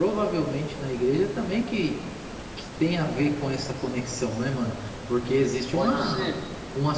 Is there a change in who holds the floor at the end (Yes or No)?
No